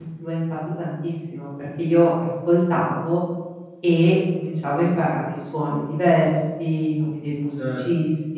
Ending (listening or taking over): taking over